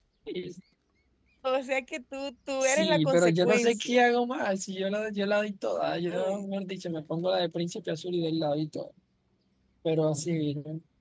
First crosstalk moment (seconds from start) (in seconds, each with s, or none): 2.6 s